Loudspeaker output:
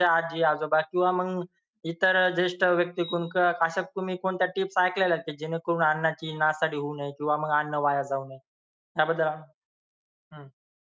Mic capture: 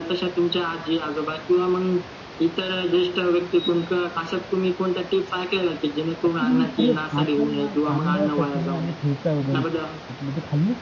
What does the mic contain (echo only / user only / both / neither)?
both